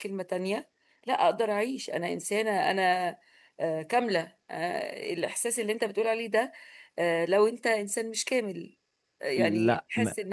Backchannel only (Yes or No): Yes